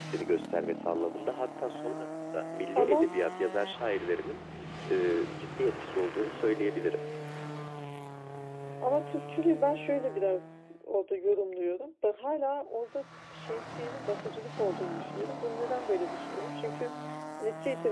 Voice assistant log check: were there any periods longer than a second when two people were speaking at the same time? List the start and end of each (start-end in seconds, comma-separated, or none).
none